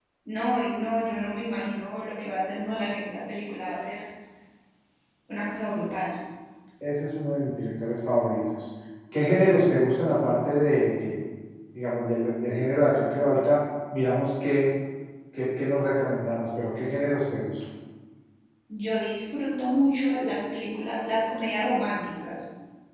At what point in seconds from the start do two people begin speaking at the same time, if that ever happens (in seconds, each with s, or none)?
none